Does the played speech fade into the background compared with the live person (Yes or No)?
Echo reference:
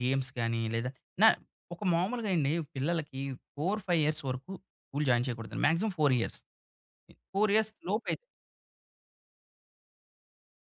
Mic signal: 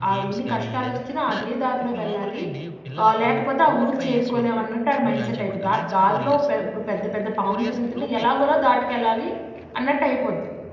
Yes